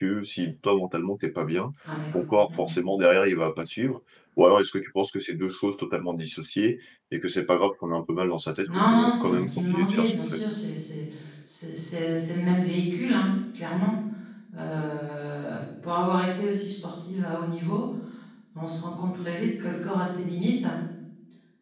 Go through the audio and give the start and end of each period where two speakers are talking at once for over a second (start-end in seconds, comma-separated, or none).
8.7-10.4